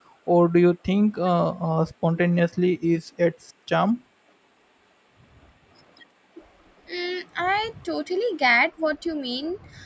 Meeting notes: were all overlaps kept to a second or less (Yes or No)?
Yes